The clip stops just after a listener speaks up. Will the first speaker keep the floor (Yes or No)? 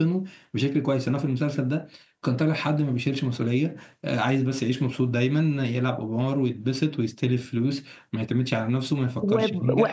No